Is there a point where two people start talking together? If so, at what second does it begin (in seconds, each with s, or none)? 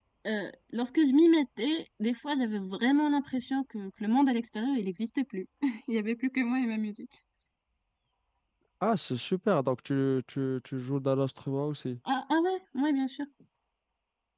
none